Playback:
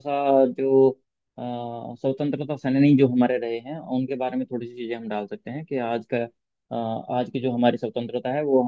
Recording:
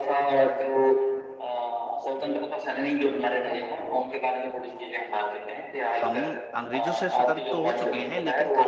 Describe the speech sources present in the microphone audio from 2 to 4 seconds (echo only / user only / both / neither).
echo only